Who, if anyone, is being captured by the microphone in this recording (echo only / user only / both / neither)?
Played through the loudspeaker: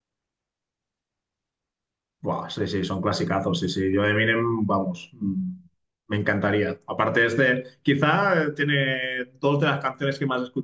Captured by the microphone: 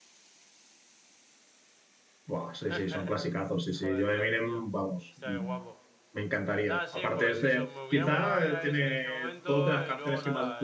both